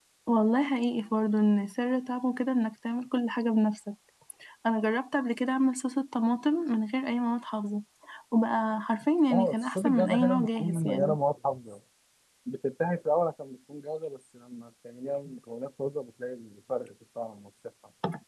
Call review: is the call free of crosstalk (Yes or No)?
No